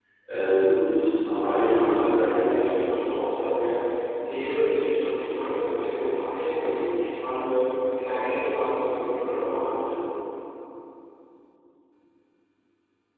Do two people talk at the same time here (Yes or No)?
Yes